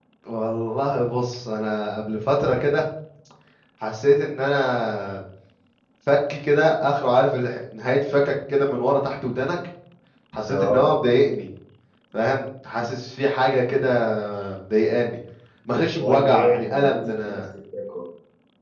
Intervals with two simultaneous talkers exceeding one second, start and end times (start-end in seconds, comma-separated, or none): 15.9-17.4